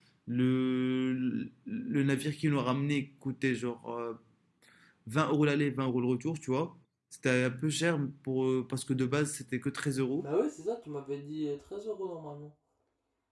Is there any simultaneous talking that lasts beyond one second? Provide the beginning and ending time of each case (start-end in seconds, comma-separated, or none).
none